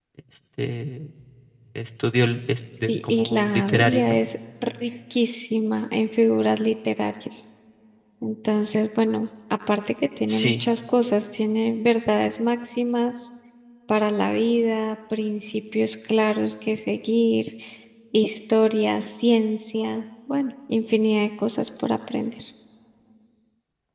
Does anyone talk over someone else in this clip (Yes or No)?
Yes